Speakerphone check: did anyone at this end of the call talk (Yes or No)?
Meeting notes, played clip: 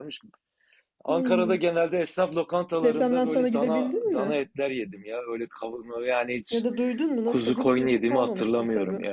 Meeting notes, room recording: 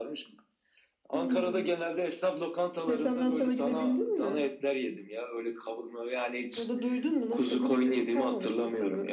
No